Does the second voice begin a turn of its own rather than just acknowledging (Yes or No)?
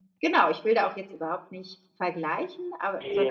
No